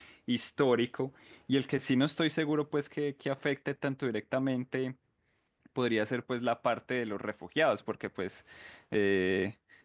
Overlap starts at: none

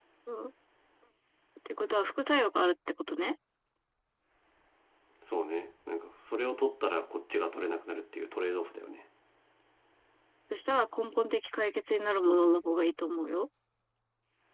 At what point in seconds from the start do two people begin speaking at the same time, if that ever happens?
none

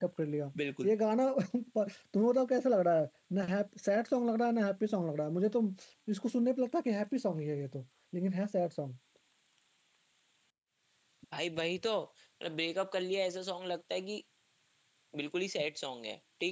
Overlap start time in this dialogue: none

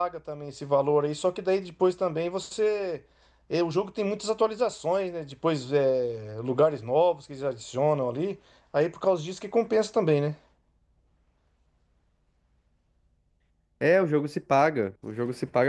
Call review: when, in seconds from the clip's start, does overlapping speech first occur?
none

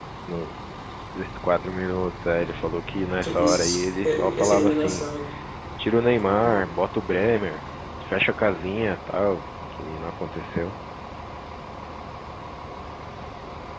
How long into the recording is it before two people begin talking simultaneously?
3.2 s

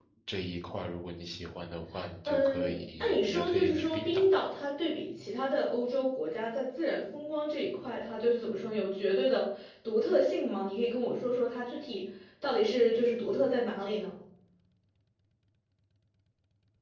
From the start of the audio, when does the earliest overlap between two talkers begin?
2.3 s

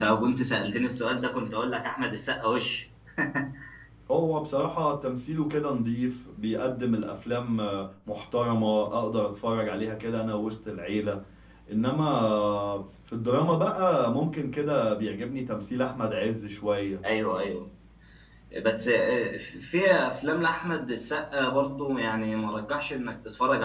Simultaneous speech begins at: none

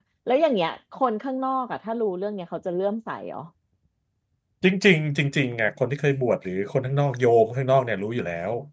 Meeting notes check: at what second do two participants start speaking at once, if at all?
none

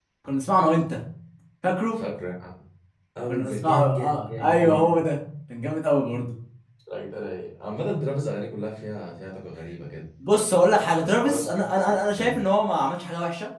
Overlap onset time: 3.3 s

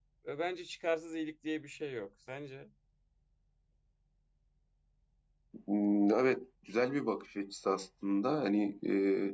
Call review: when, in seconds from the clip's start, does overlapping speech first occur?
none

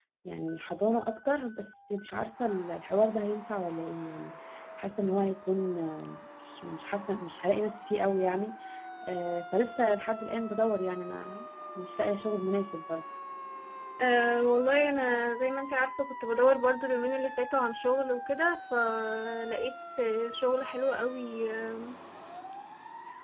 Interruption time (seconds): none

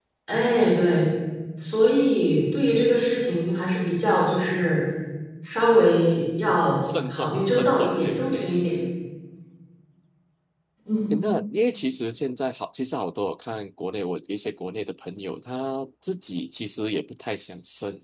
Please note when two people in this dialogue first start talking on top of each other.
7.1 s

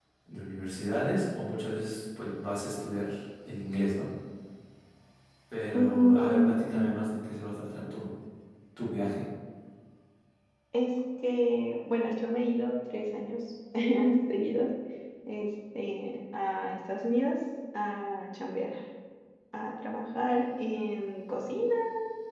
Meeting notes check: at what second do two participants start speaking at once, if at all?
5.7 s

